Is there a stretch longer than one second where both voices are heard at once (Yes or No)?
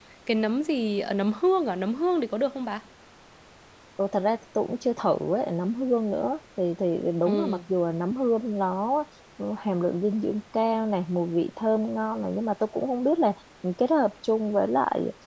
No